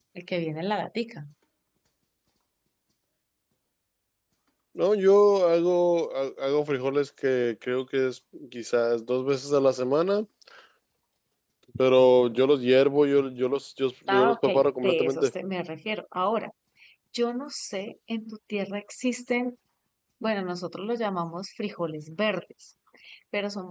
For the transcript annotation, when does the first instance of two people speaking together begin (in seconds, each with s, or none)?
14.1 s